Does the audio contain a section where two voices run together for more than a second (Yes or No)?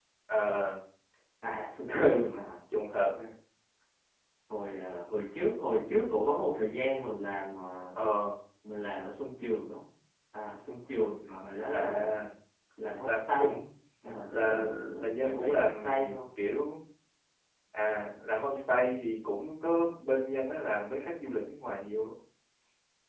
Yes